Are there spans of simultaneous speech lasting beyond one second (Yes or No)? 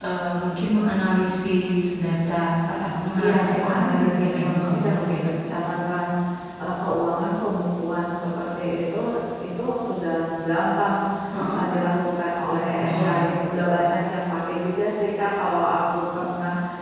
Yes